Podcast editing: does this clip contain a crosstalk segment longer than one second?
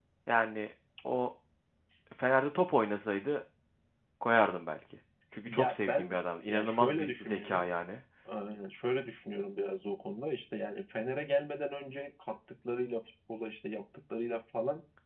Yes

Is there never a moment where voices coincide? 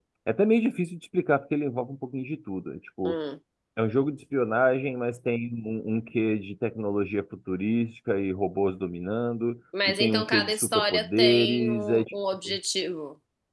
No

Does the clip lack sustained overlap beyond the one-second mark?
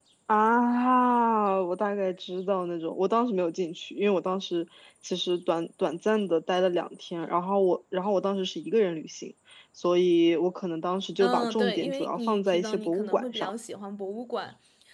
No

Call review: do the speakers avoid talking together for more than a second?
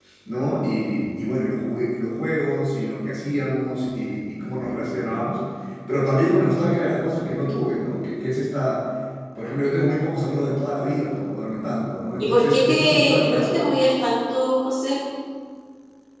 No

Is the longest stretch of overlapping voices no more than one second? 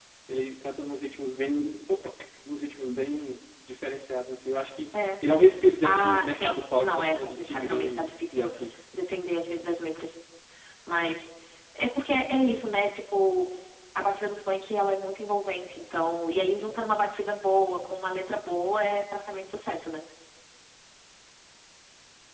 No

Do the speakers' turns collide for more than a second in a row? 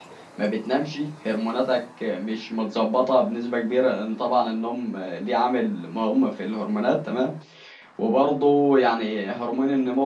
No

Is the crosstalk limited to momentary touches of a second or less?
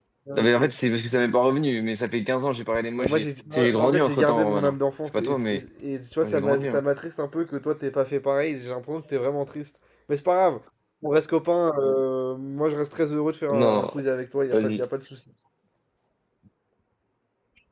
No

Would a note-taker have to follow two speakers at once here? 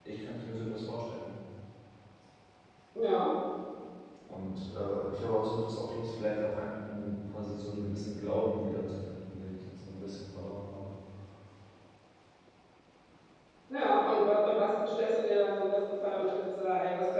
No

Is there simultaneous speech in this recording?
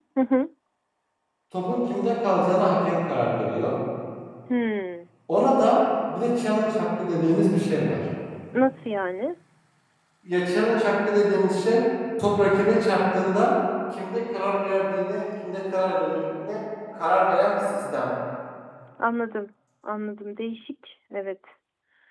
No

